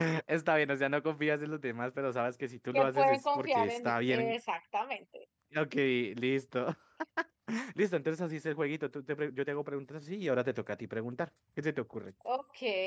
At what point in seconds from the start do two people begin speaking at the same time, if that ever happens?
2.7 s

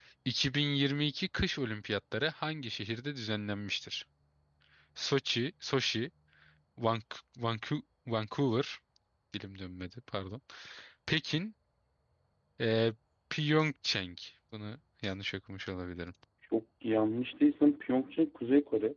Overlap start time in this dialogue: none

